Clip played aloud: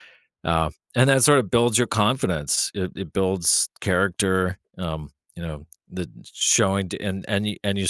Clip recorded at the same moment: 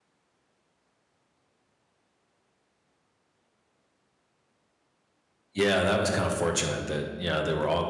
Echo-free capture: Yes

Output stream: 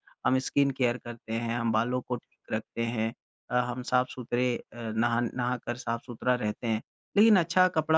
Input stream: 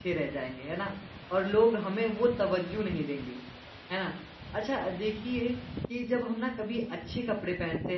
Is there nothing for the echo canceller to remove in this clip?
Yes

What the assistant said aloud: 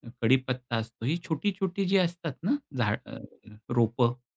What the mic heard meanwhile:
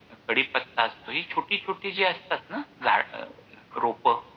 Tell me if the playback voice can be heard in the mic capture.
Yes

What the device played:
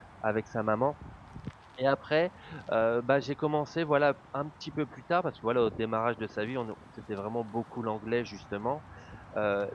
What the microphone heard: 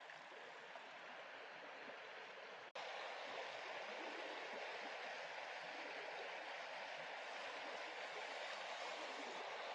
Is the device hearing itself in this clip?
No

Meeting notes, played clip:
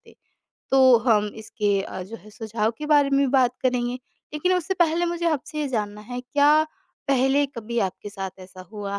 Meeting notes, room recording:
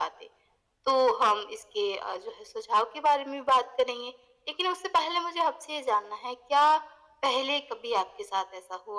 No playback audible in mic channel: No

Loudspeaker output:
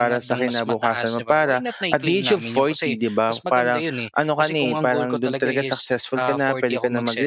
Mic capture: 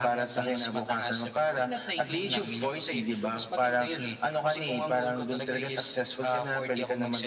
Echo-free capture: No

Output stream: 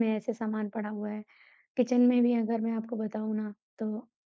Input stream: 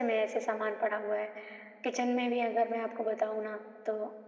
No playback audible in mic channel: No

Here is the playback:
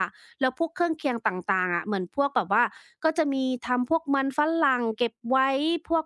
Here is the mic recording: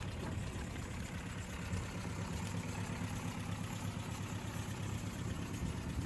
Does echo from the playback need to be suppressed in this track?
No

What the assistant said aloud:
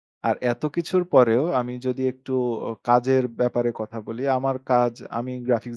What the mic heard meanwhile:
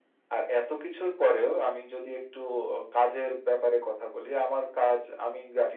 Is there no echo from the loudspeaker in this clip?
No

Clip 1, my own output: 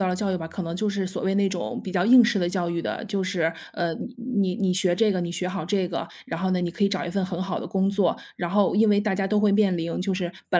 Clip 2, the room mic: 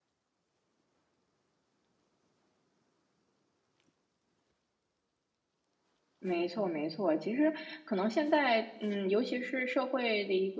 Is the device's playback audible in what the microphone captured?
No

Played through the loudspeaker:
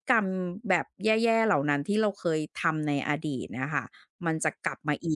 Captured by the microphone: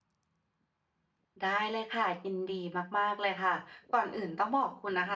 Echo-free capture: Yes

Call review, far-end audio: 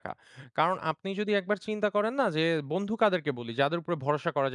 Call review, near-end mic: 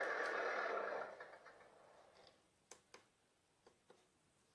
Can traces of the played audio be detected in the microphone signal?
No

